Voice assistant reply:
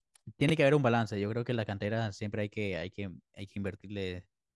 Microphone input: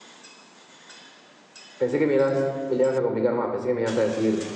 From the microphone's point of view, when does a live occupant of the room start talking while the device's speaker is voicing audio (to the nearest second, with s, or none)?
2 s